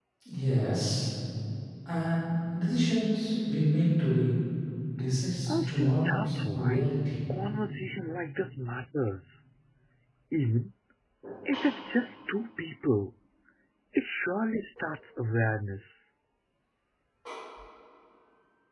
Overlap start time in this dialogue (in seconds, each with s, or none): 5.5 s